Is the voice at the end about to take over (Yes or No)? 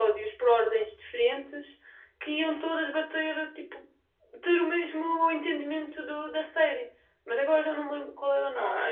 Yes